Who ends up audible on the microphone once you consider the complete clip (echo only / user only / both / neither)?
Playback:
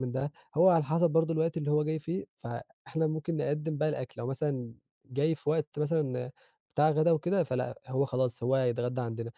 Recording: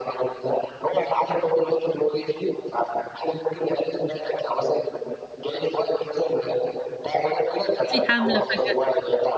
both